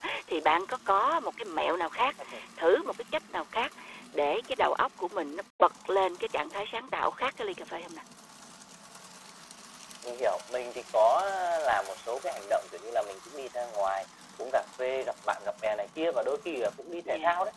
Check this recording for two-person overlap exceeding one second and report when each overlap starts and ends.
none

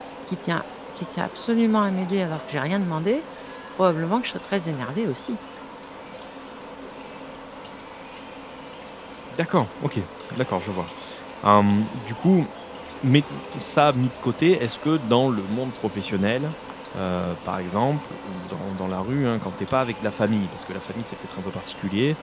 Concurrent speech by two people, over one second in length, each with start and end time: none

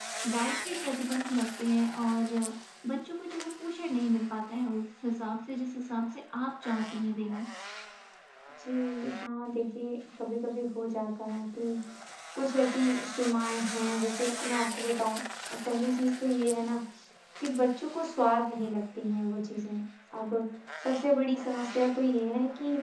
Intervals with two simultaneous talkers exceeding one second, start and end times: none

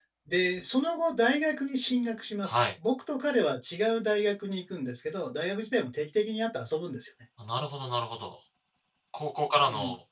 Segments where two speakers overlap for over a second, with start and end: none

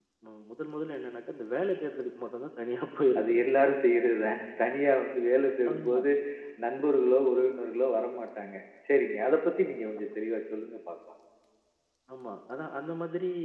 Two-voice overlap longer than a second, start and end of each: none

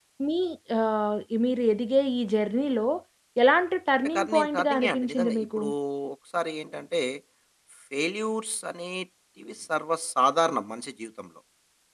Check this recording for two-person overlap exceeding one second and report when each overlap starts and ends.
4.2-5.6

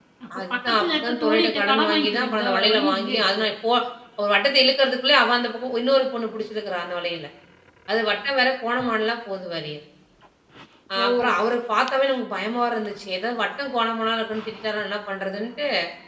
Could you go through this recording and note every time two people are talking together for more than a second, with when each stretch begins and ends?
0.5-3.4

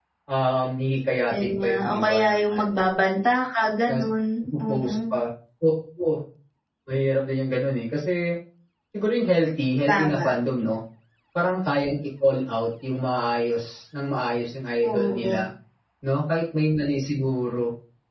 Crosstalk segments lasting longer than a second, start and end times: 1.3-2.7

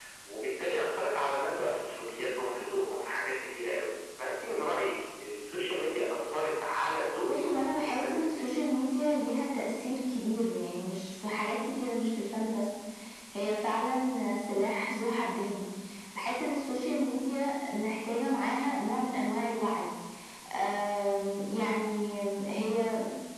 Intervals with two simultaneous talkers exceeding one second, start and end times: 7.3-8.5

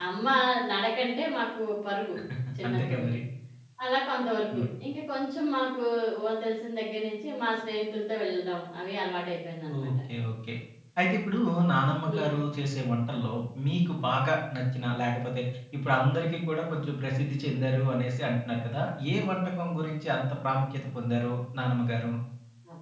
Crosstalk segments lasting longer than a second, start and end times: none

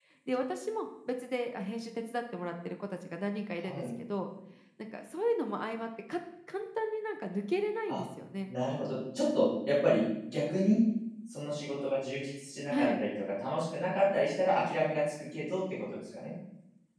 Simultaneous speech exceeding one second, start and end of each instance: none

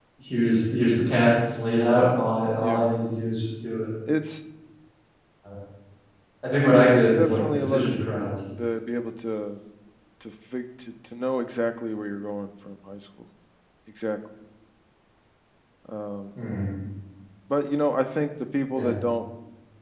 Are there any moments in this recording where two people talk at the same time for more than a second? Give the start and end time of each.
6.9-8.1

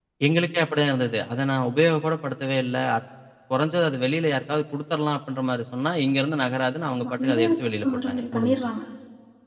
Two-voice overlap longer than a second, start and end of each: 7.0-8.7

